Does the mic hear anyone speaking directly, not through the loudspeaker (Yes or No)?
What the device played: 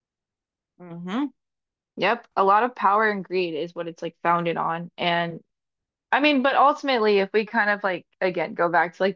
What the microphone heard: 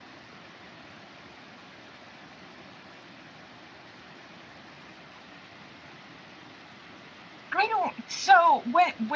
Yes